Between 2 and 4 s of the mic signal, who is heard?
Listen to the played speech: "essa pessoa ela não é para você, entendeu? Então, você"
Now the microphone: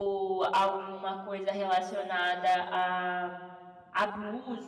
user only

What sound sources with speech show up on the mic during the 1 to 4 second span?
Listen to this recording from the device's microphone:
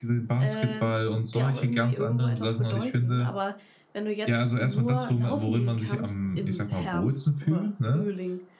both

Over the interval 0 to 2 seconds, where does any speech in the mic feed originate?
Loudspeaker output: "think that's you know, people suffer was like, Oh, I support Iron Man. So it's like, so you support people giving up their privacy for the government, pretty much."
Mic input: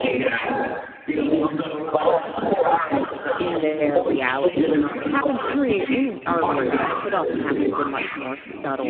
echo only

